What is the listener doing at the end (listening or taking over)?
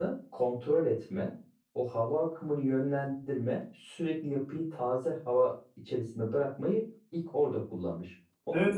taking over